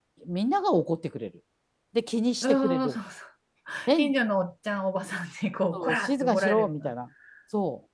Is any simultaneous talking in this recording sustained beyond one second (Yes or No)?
Yes